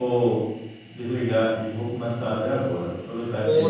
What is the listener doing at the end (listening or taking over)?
listening